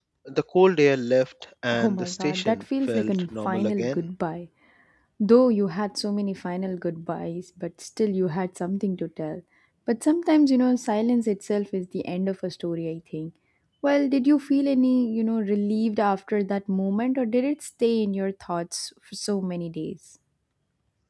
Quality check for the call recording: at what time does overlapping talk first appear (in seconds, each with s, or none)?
1.7 s